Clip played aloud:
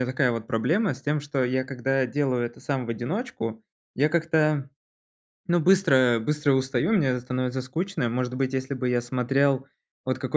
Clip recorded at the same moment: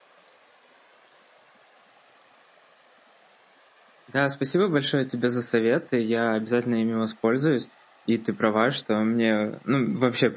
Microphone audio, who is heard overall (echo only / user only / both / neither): user only